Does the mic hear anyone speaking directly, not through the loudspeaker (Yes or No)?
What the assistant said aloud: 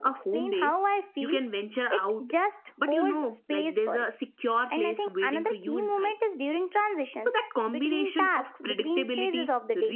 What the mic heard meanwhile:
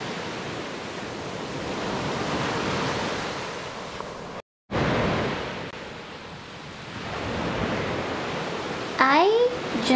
Yes